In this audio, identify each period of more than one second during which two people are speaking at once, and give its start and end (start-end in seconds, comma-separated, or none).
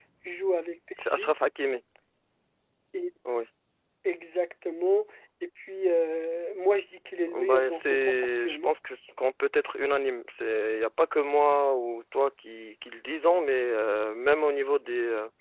7.3-8.7